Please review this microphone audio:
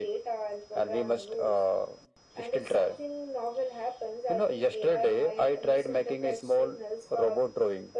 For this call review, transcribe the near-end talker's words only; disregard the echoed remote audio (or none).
none